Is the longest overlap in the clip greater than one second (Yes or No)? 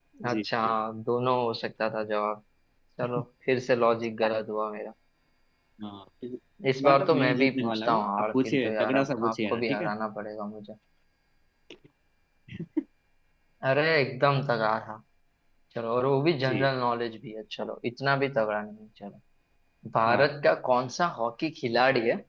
Yes